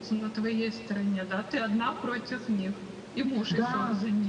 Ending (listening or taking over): taking over